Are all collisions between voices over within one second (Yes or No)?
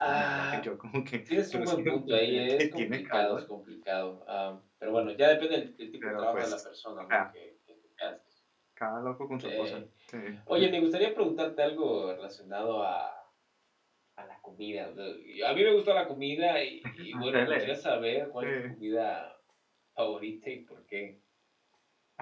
No